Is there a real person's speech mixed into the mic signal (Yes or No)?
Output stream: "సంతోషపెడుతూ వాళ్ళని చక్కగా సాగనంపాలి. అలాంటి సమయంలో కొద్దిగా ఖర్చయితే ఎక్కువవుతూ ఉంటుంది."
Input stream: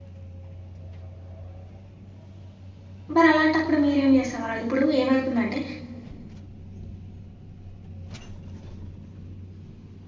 Yes